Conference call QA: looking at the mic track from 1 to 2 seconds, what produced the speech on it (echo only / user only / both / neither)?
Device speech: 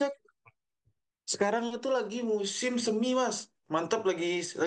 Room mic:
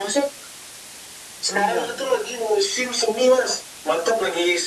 both